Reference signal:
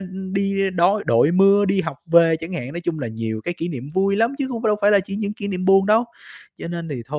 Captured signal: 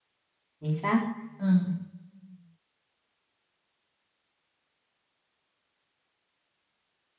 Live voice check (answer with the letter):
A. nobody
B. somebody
B